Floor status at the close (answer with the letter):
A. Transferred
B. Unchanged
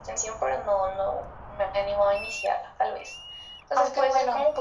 B